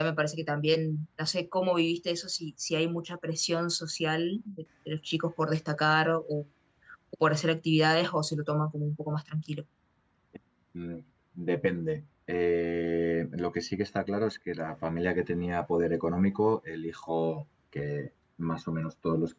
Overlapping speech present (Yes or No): No